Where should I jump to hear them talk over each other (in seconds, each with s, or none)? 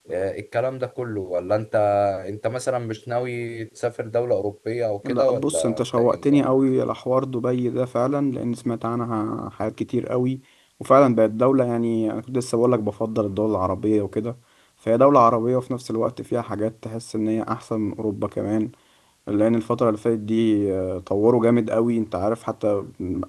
5.0 s